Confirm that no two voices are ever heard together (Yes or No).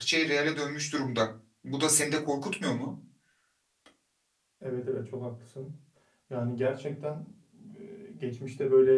Yes